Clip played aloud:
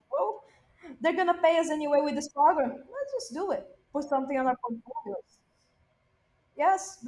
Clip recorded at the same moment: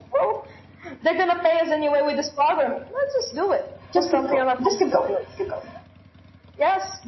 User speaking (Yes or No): Yes